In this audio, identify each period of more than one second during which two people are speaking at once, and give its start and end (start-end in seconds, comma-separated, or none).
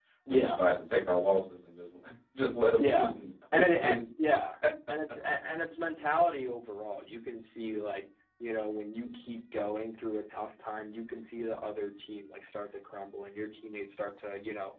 none